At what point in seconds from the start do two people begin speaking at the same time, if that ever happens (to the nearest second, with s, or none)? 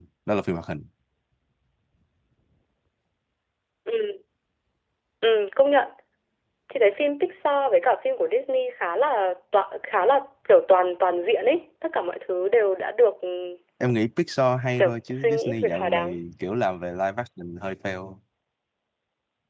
15 s